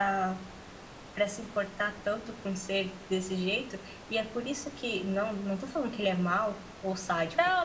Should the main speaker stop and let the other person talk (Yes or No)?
Yes